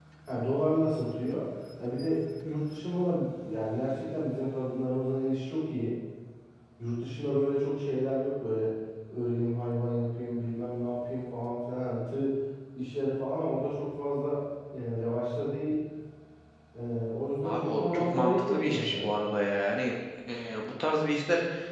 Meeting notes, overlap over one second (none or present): present